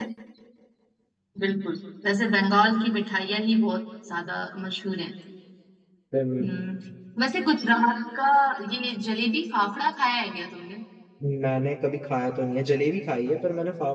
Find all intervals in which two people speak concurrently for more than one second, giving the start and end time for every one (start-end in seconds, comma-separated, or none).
none